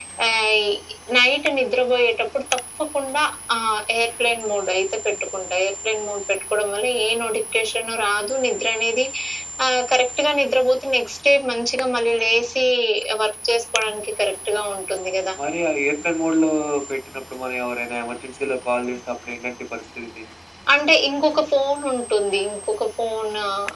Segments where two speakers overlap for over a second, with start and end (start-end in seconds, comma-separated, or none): none